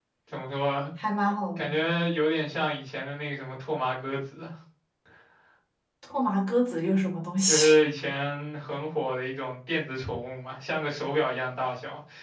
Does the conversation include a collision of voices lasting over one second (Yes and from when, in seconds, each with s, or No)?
No